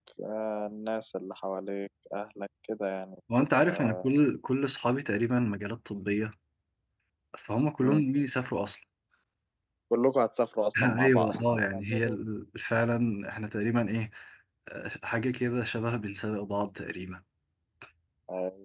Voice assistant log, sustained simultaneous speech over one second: present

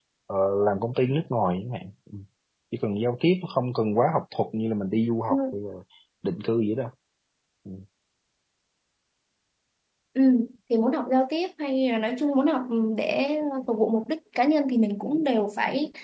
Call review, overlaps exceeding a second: none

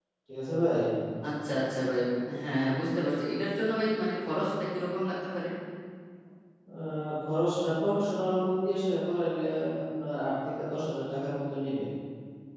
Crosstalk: none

